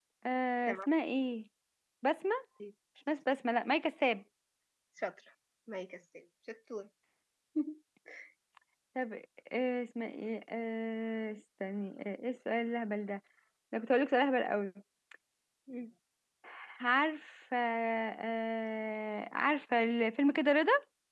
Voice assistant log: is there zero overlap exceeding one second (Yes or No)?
Yes